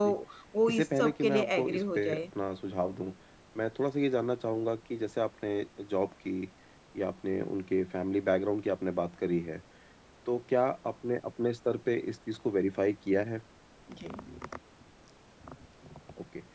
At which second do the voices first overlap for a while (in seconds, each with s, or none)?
0.7 s